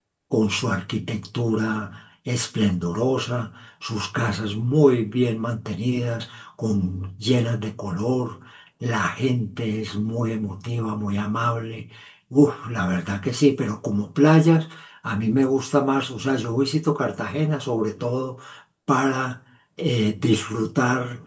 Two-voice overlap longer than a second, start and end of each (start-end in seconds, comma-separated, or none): none